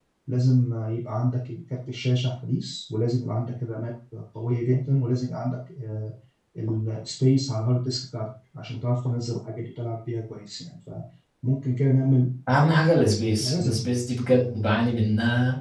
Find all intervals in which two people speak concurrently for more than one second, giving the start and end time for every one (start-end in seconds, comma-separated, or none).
none